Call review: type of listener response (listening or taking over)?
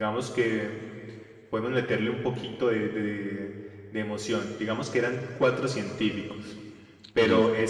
listening